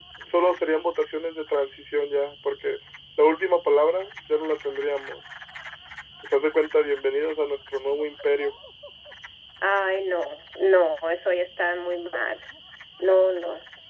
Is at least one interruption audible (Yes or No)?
No